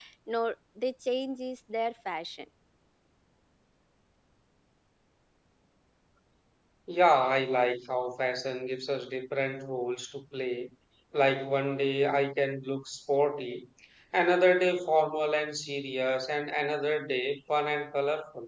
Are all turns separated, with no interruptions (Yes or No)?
Yes